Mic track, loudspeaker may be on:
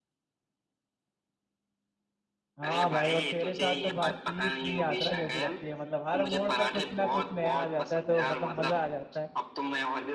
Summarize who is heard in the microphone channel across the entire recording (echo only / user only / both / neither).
both